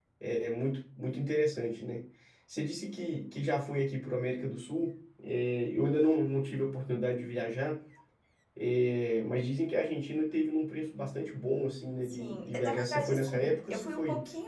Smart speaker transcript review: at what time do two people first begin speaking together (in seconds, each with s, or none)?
12.1 s